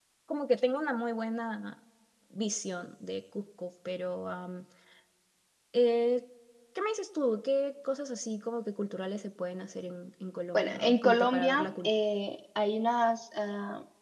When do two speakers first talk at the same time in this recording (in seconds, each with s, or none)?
10.5 s